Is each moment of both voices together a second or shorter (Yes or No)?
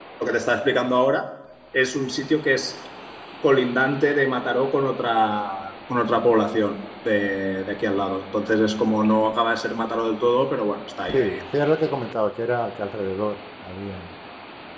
Yes